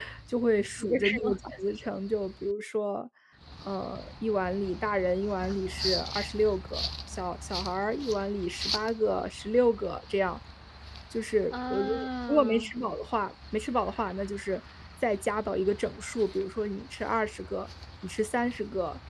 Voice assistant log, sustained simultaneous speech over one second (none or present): present